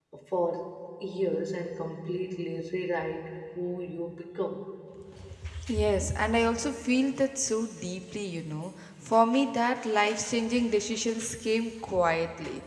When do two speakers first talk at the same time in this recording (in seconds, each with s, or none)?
none